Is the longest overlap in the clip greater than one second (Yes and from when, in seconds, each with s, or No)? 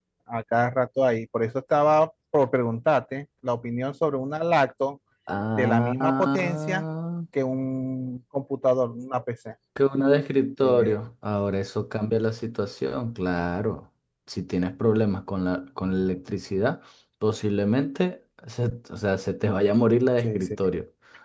Yes, from 5.6 s